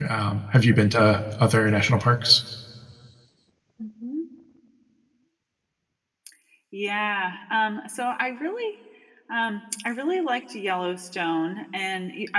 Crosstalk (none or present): none